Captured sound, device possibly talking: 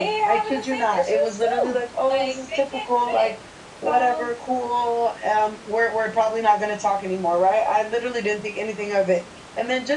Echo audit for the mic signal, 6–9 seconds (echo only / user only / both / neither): echo only